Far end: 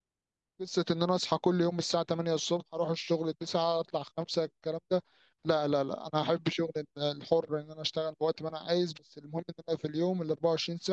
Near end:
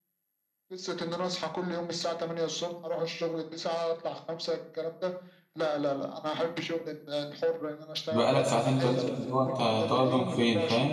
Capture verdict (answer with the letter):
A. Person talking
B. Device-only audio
A